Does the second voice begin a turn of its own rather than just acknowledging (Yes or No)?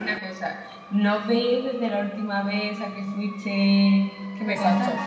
Yes